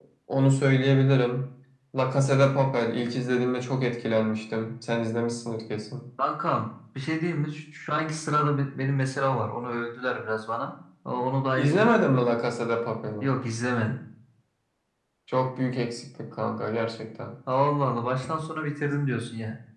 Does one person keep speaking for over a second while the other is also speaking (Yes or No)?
No